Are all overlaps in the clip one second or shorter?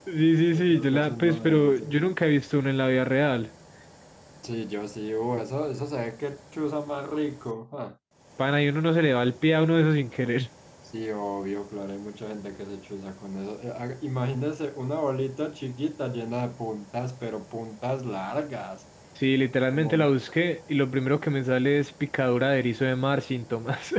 No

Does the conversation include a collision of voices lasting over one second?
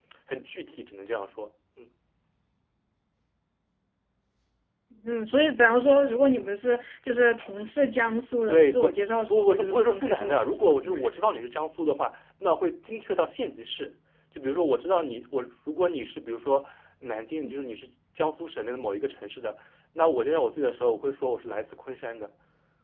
Yes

